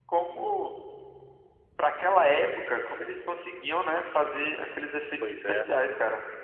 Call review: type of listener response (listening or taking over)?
listening